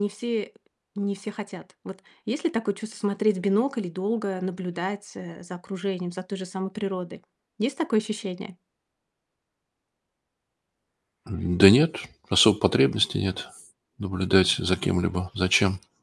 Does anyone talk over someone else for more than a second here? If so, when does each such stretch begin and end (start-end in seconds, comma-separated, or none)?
none